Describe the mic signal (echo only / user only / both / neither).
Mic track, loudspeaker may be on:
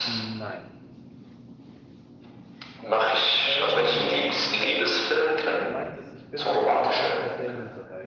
both